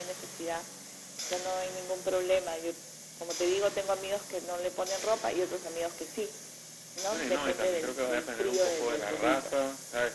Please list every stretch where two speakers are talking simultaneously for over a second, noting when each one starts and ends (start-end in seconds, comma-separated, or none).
7.1-9.5